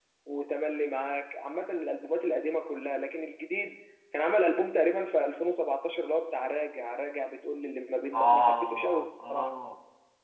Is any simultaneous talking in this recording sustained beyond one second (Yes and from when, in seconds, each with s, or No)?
Yes, from 8.1 s